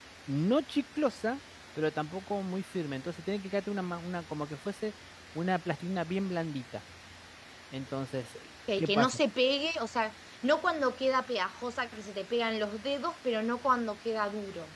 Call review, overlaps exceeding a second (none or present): none